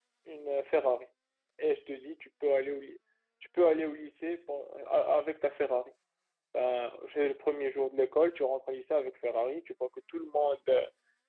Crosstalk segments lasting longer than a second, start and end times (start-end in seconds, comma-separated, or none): none